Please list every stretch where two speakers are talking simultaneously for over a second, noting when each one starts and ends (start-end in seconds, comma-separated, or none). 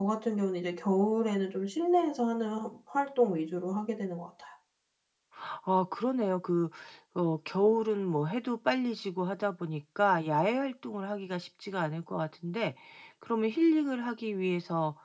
none